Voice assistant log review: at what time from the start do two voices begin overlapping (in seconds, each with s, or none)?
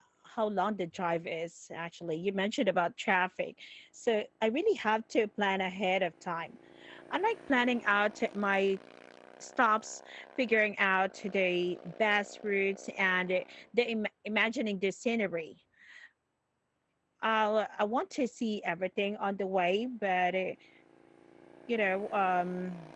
none